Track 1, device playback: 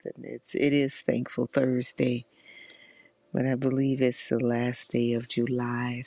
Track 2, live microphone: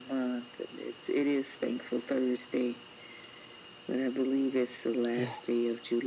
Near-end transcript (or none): Yes,